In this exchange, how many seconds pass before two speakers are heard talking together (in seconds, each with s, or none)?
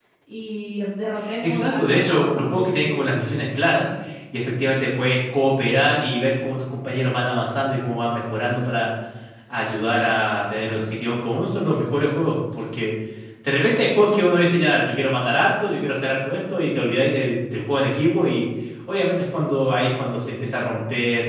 1.4 s